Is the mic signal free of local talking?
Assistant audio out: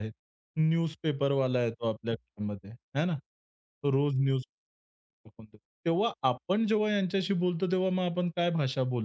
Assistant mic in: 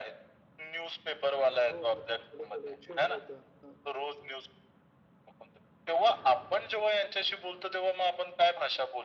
No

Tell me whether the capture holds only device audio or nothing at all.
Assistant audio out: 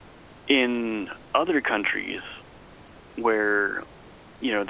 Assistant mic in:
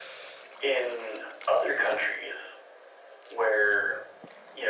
Yes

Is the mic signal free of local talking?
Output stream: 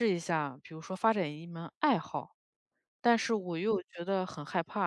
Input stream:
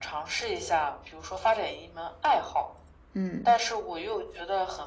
No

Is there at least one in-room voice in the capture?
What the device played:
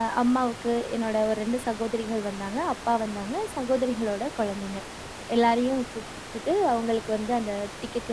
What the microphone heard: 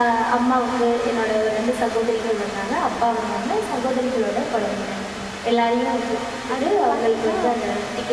Yes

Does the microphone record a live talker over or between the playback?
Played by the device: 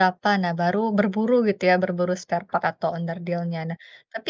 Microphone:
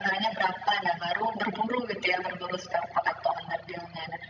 No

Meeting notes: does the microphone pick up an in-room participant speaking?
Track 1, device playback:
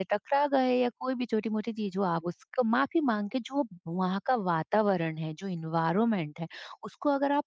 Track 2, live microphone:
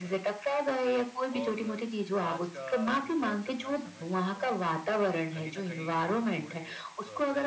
Yes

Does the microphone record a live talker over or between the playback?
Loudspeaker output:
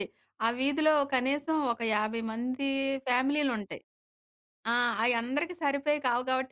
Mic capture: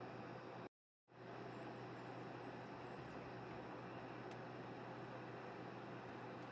No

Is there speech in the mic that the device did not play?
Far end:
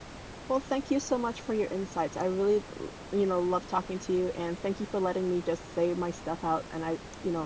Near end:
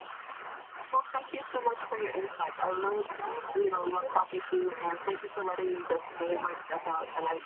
Yes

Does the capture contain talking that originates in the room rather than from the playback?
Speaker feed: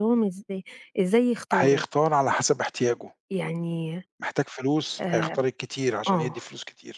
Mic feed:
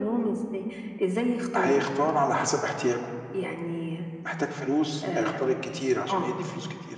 No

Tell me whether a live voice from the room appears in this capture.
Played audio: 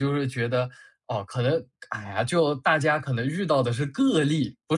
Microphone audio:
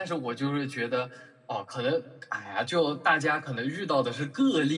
No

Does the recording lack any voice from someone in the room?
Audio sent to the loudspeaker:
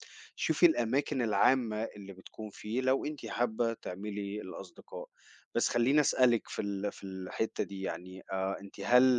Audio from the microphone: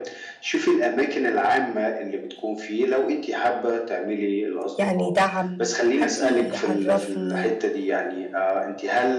No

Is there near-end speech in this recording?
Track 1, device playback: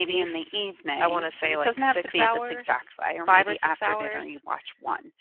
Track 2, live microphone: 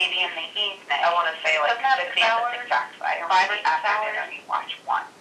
No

